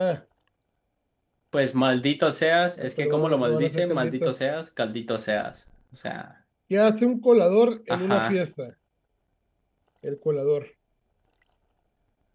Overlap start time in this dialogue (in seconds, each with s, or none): 2.8 s